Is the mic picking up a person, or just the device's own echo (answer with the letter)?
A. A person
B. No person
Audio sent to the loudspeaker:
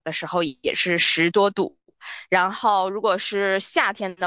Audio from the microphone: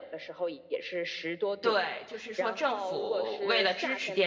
A